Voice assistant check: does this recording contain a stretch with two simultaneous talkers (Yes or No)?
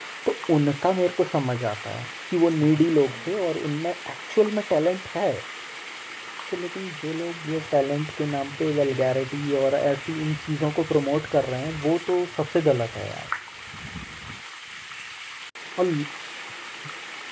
No